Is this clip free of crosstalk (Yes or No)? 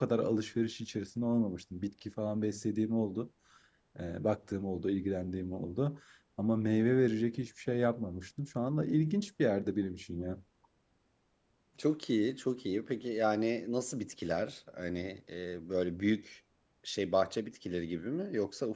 Yes